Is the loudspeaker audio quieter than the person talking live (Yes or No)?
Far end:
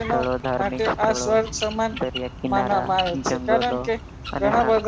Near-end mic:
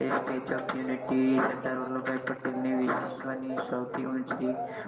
Yes